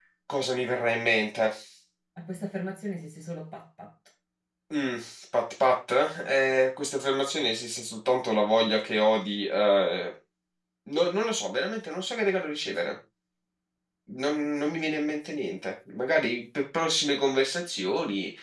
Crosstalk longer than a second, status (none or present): none